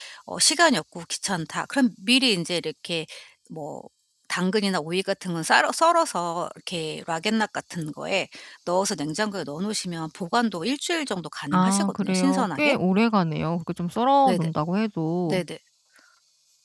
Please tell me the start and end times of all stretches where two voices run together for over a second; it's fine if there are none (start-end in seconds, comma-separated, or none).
11.5-12.8